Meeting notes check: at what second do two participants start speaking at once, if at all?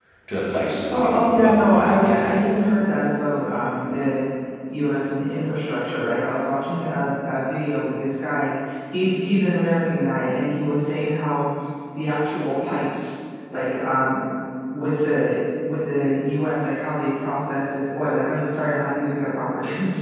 1 s

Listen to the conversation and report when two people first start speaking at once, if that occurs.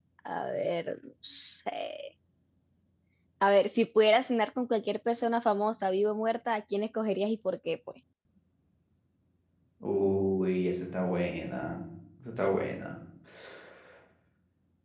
none

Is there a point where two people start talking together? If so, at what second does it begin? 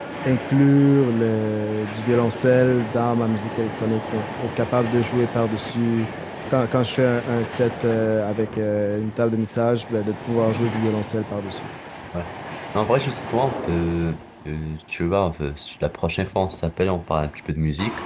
none

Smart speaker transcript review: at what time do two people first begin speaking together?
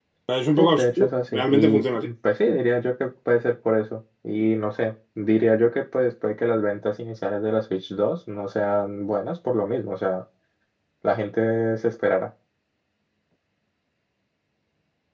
1 s

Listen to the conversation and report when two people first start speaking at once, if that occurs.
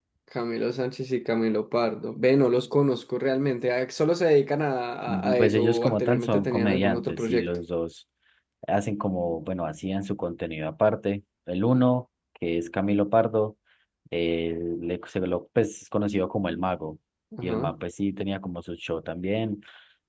5 s

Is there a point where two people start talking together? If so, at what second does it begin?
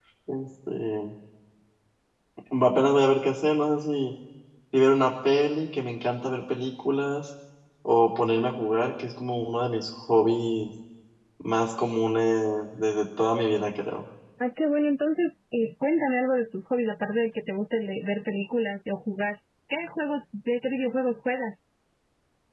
none

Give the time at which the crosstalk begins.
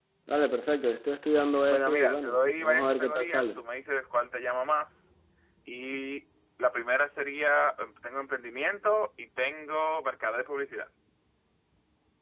2 s

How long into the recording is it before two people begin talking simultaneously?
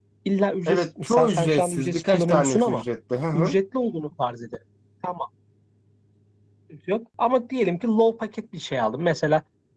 1 s

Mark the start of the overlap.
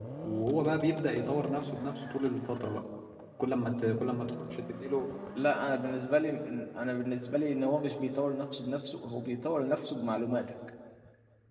none

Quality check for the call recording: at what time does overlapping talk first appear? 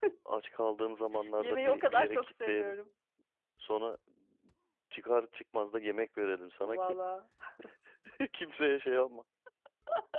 1 s

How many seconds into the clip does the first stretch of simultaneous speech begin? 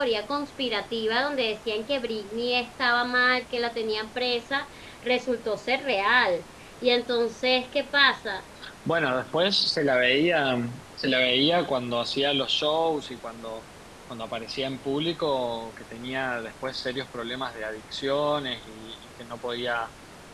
none

